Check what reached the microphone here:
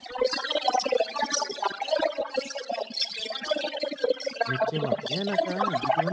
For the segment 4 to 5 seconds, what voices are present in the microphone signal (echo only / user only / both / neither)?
both